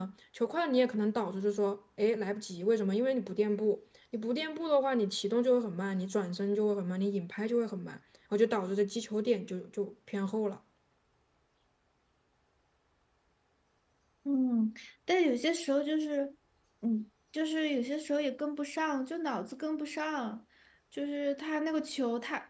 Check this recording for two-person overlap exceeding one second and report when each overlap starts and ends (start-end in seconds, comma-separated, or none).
none